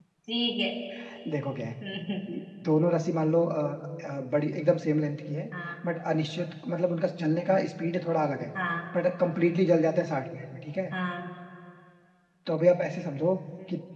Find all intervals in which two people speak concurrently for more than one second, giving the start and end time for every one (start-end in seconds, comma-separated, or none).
none